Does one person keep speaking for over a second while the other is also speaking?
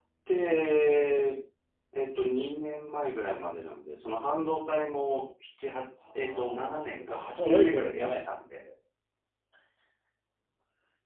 Yes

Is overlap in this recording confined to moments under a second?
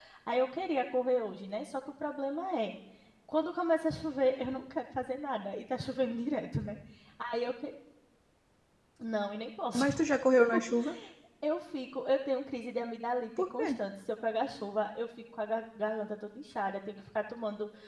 Yes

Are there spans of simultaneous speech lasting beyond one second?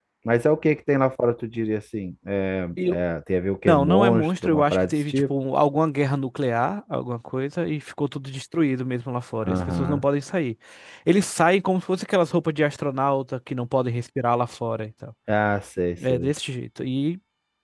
Yes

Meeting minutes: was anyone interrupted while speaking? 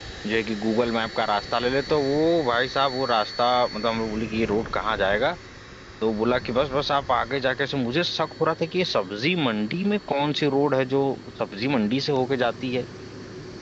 No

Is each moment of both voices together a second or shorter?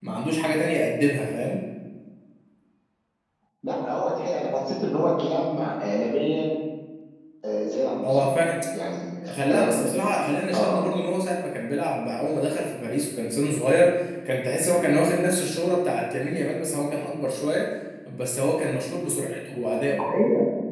Yes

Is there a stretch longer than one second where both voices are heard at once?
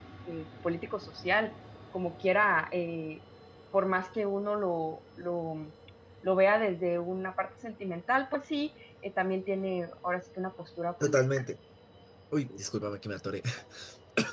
No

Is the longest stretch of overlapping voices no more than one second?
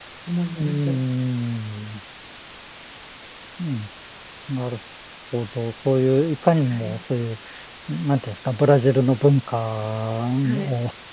Yes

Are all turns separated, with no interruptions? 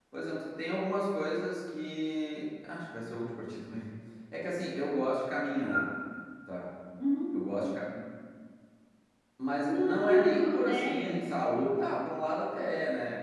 No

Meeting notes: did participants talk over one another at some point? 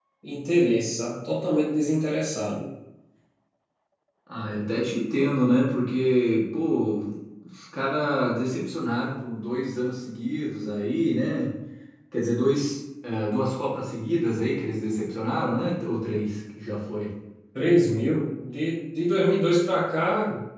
No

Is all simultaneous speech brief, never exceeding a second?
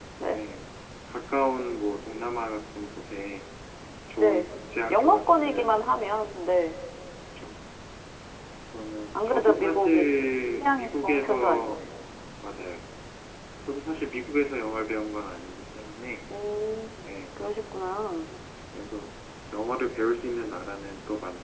No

